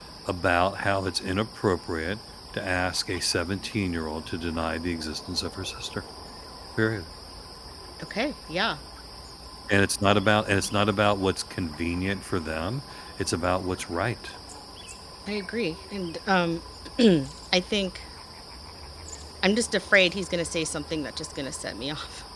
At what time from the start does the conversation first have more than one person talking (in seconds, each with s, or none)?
none